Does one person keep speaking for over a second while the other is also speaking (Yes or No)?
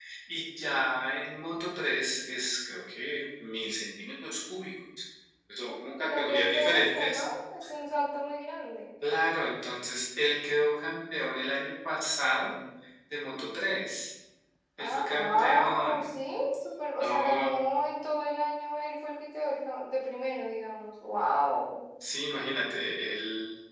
Yes